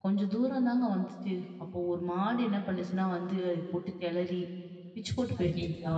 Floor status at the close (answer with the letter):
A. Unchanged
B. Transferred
A